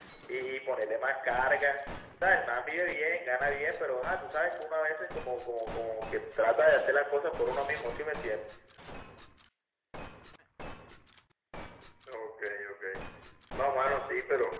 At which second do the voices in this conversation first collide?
none

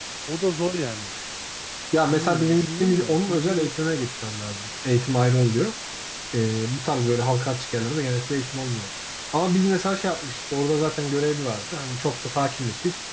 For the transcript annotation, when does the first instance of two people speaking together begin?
2.1 s

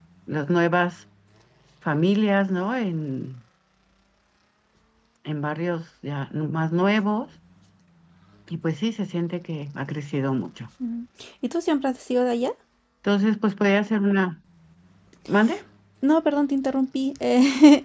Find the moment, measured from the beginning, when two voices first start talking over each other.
none

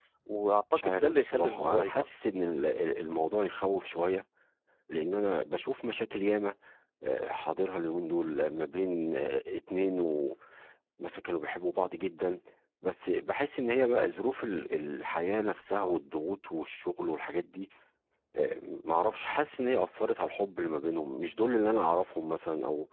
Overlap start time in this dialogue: 0.8 s

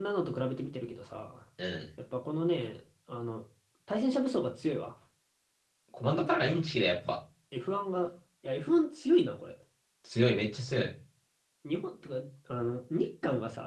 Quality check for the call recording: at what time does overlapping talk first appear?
none

